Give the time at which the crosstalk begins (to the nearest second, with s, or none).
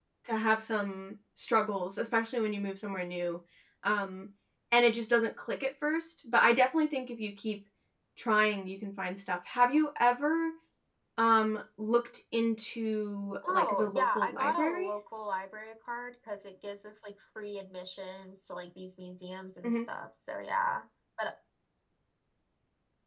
13 s